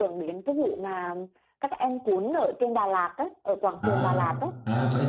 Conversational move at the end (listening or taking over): taking over